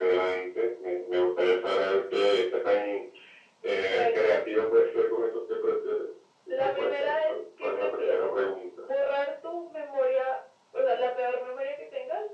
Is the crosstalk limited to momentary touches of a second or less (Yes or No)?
No